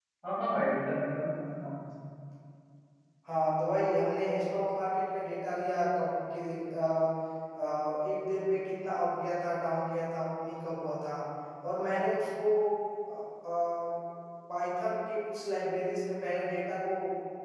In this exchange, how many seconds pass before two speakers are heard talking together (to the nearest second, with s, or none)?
none